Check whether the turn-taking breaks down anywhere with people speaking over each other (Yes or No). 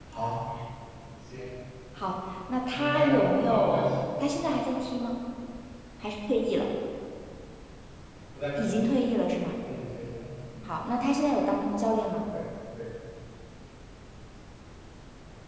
Yes